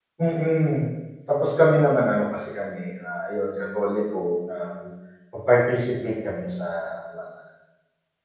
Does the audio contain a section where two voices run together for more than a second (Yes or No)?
No